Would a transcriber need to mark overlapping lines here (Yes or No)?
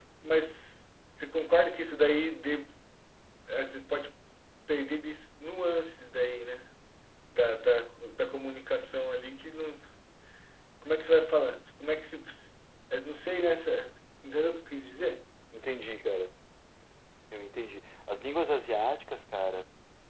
No